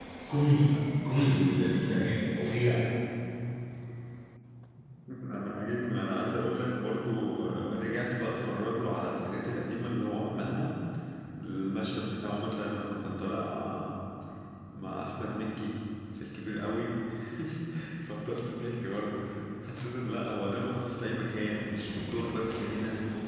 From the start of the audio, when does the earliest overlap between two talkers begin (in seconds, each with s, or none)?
none